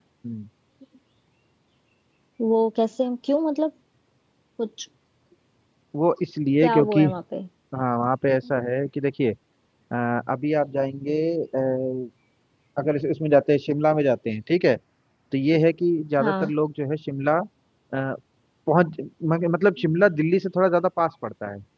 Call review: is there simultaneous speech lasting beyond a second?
No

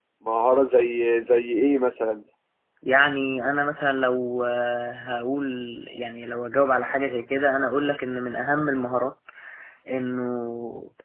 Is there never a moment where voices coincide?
Yes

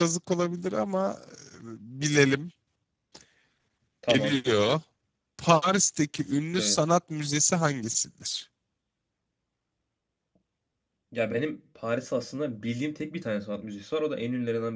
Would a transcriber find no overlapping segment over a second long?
Yes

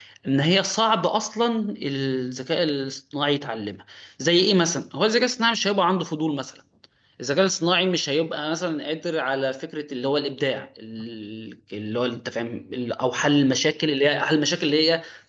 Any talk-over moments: No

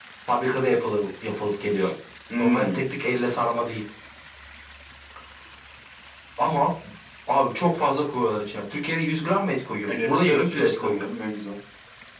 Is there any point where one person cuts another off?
Yes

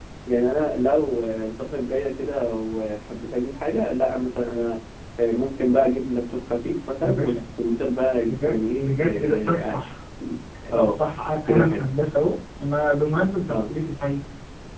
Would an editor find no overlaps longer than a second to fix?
No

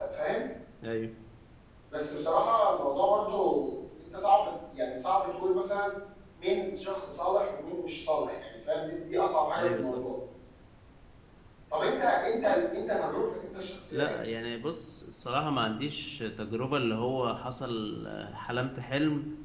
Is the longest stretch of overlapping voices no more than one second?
Yes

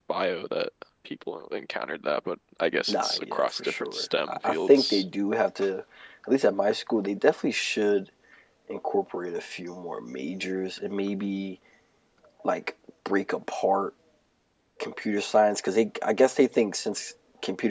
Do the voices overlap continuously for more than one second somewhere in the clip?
Yes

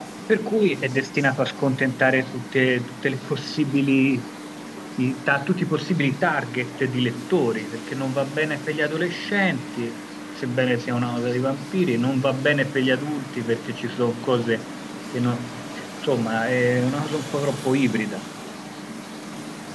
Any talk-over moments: No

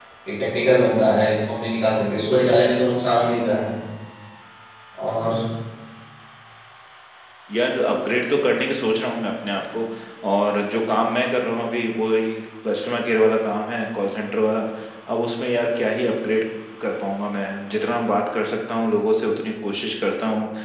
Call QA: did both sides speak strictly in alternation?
Yes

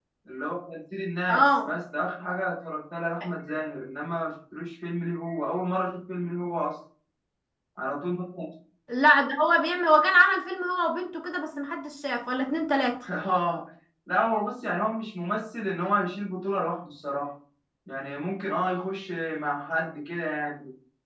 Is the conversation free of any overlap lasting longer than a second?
Yes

